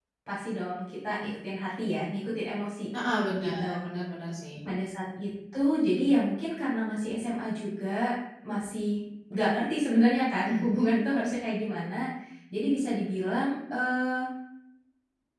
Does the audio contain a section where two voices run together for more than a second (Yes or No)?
No